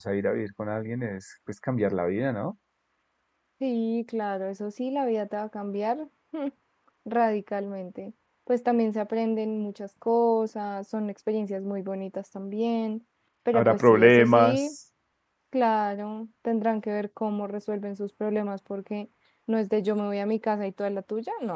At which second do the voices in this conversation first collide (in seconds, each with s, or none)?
13.5 s